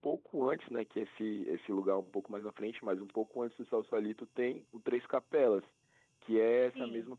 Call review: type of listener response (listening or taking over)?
listening